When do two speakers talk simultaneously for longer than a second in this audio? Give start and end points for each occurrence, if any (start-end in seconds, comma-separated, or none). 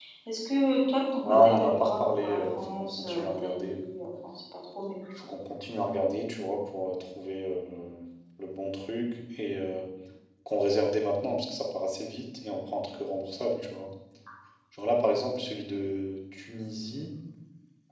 1.2-3.8